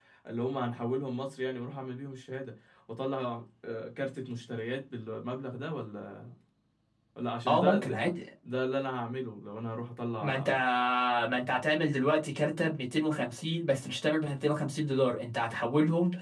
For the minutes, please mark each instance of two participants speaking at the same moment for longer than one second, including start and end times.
none

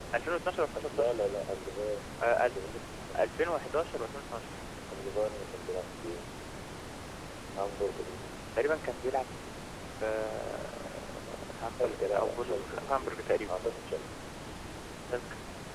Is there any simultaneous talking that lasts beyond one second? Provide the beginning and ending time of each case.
11.8-13.1

